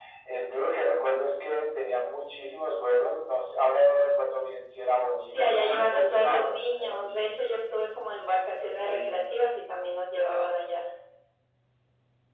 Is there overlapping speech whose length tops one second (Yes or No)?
Yes